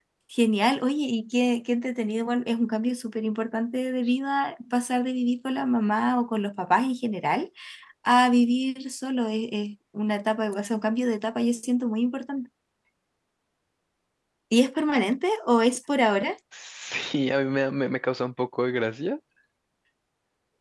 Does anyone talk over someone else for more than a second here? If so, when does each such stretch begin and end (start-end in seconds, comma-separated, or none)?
none